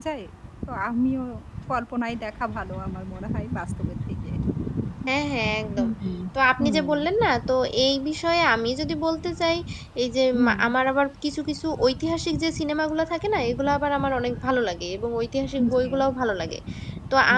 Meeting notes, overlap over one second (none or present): none